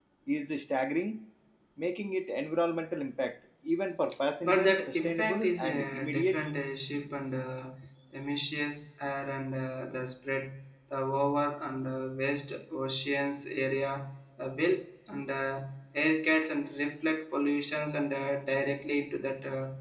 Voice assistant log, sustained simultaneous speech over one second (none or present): present